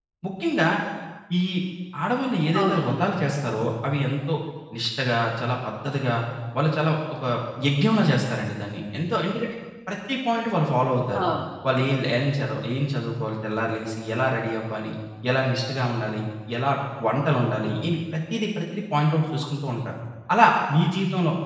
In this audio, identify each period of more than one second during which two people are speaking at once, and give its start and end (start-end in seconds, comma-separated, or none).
none